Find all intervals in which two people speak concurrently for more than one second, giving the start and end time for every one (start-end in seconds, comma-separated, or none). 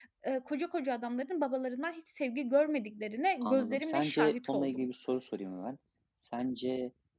3.4-4.8